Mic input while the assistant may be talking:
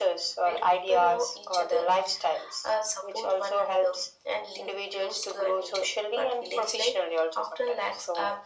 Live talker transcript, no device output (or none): none